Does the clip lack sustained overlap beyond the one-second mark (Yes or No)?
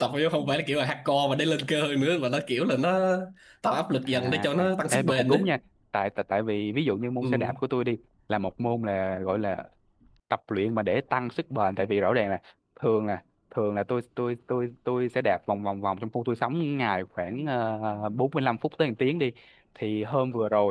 No